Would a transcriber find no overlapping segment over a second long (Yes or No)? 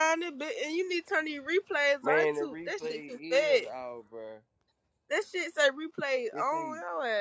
No